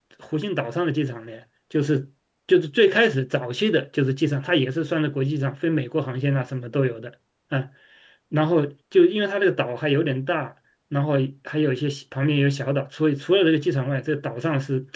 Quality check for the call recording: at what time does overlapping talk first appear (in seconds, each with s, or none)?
none